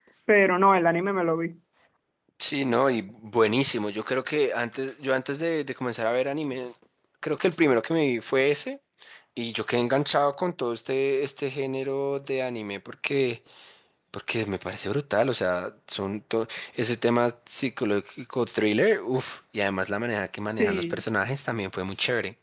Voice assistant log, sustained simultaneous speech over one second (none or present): none